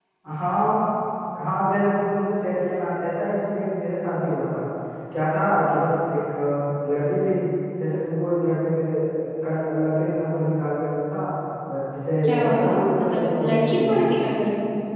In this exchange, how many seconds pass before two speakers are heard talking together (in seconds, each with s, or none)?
12.2 s